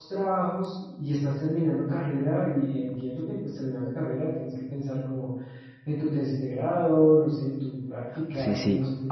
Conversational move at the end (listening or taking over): taking over